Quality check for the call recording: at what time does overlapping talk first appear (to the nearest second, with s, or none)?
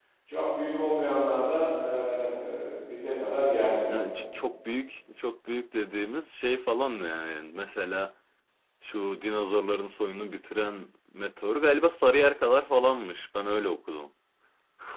none